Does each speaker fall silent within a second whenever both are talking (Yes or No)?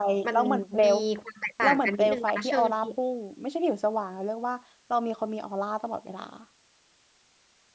No